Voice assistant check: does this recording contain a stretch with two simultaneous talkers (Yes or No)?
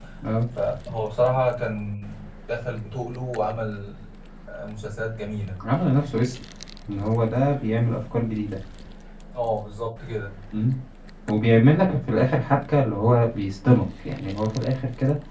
No